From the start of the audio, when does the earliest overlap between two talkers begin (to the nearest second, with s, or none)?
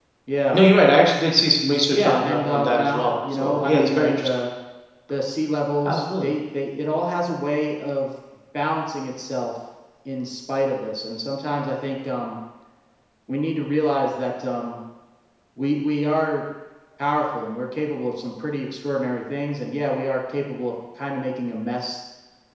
2 s